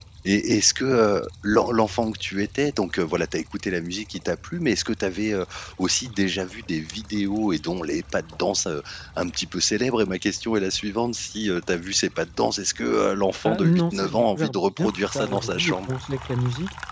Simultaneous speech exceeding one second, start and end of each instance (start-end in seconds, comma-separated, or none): 13.4-15.9